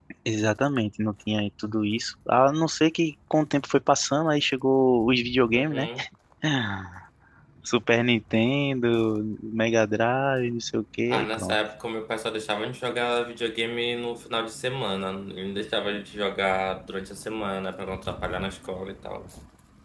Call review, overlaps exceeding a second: none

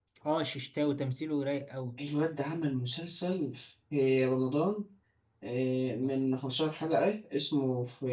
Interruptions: none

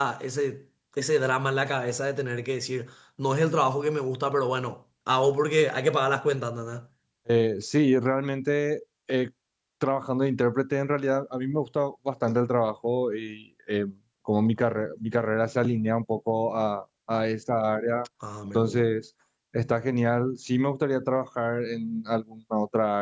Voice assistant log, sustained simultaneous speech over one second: none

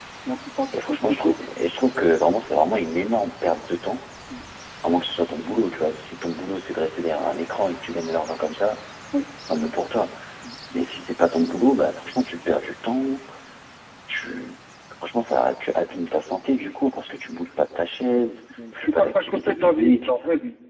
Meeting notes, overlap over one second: present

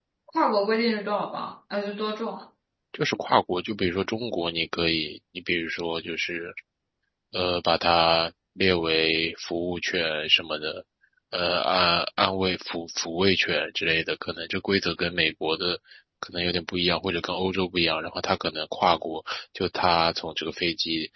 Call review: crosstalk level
none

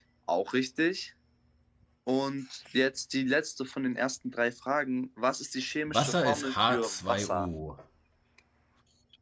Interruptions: present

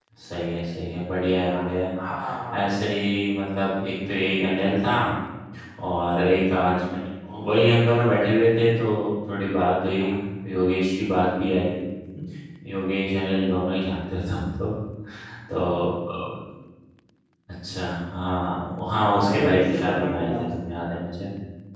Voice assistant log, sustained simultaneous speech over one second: present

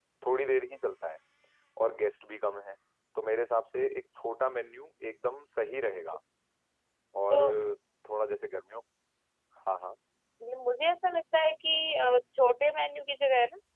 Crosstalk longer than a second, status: none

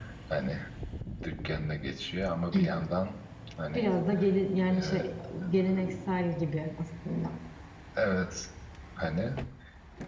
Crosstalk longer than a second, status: none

